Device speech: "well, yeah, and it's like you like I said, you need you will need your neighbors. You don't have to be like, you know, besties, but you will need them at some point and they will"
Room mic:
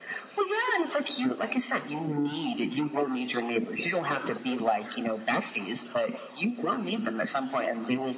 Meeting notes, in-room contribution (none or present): none